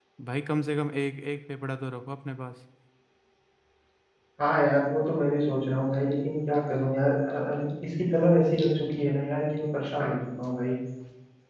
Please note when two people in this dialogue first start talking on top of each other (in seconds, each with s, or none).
none